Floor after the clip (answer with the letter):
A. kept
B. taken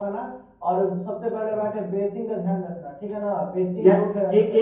B